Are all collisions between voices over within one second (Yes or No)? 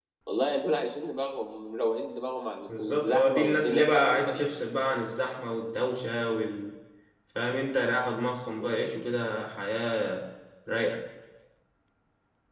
No